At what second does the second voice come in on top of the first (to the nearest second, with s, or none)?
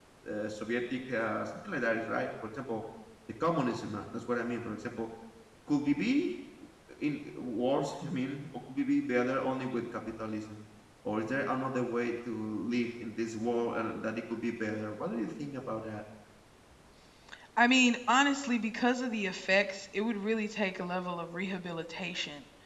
none